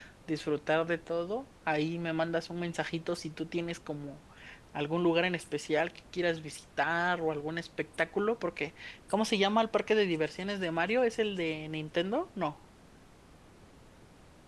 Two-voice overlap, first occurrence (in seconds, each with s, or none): none